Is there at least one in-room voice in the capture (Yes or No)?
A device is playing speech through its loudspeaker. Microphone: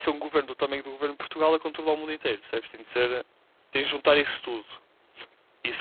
Yes